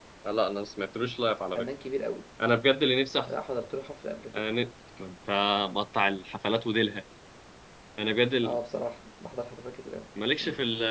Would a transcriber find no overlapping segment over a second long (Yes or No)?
Yes